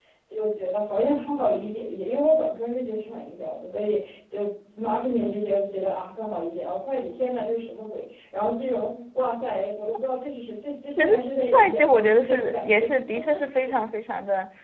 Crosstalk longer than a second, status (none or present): present